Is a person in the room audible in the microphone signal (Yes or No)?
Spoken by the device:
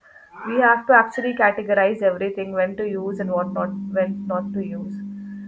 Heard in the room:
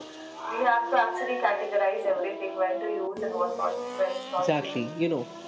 Yes